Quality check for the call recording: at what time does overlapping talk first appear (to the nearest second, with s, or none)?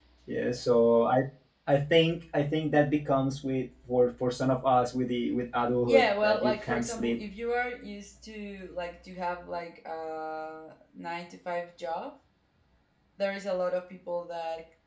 6 s